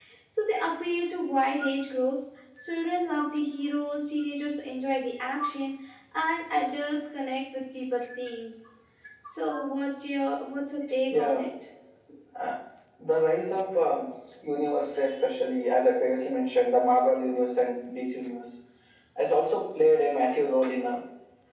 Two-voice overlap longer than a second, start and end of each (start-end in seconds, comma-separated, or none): none